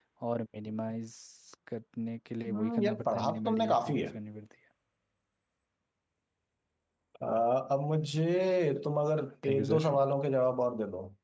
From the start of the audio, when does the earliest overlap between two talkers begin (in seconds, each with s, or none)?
2.5 s